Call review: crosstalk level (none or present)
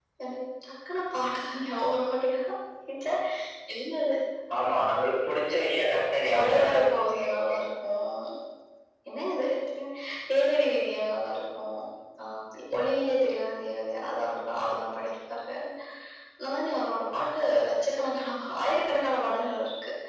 present